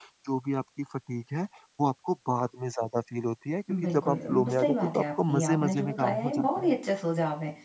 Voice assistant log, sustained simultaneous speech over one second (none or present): present